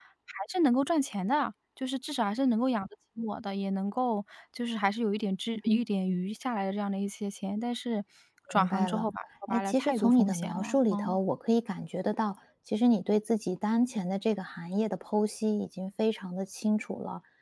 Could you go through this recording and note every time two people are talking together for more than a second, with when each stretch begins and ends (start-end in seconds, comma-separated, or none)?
9.5-11.2